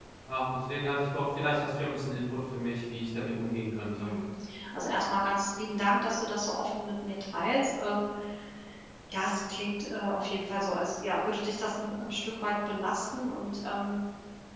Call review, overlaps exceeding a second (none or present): none